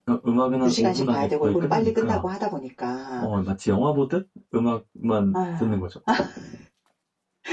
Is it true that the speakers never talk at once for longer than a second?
No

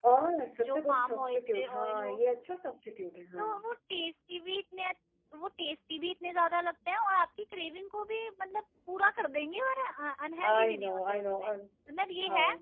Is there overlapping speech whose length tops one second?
Yes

